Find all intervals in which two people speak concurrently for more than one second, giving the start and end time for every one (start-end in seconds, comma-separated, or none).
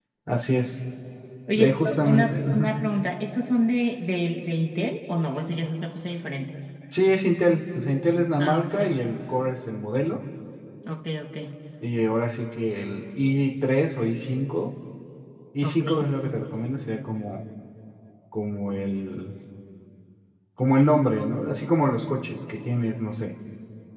1.6-2.8